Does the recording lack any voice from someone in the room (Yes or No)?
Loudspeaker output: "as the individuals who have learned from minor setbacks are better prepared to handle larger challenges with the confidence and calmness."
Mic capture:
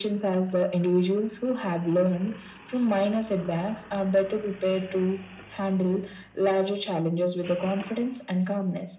Yes